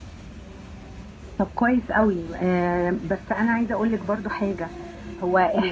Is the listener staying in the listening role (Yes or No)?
Yes